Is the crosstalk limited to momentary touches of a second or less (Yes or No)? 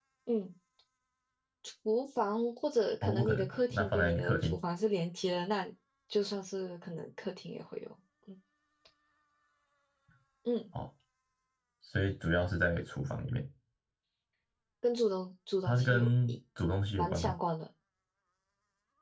No